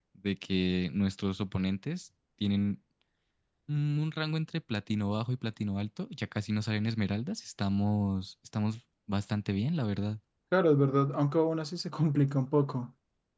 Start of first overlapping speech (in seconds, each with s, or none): none